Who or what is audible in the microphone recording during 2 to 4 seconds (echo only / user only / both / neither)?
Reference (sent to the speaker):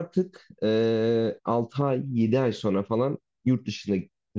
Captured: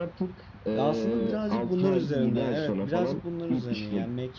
both